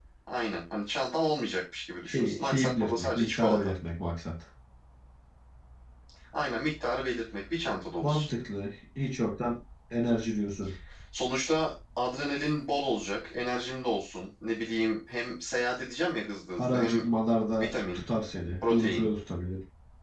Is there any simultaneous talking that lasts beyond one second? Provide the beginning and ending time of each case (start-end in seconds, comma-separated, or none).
2.0-3.7